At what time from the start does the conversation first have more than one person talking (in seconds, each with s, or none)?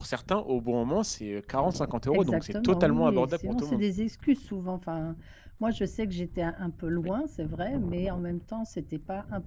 2.1 s